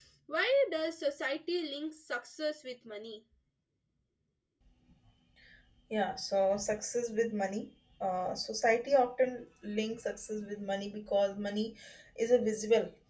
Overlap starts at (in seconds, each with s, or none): none